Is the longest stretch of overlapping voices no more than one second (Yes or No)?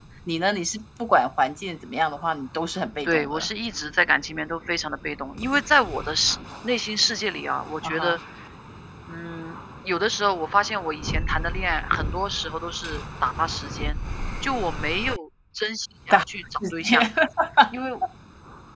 Yes